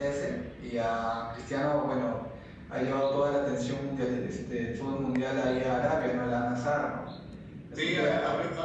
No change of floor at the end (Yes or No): No